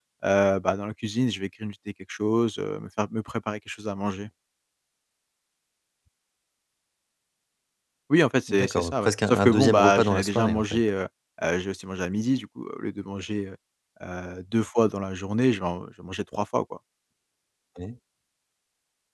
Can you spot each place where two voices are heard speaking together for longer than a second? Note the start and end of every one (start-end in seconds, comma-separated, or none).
8.5-10.8